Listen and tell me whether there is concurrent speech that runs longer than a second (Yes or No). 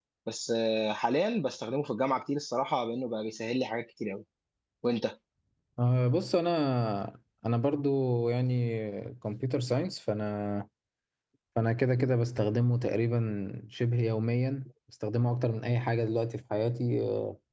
No